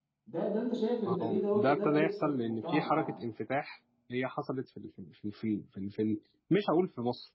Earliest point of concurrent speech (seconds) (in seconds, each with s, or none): 1.1 s